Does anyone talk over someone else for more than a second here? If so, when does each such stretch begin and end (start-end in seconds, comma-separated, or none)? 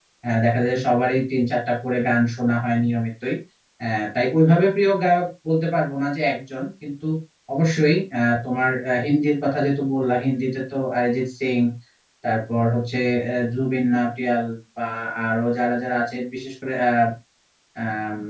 none